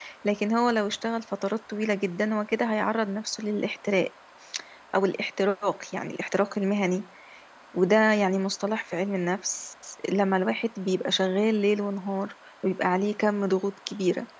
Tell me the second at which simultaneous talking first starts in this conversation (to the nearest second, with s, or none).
none